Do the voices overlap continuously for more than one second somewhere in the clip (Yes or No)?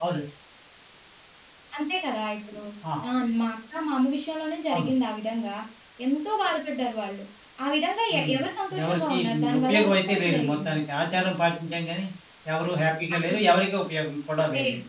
Yes